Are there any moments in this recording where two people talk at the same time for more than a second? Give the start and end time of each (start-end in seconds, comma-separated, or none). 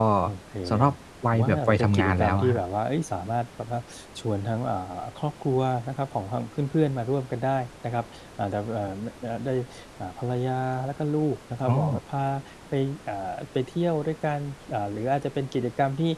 1.3-2.6